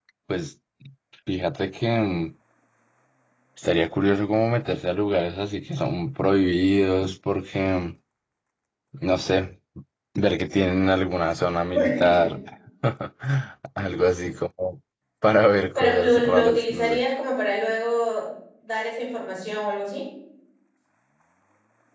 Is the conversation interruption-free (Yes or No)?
No